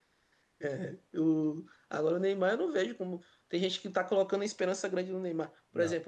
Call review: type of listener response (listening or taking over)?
listening